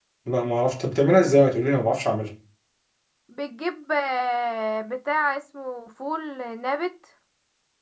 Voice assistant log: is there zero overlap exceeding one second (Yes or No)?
Yes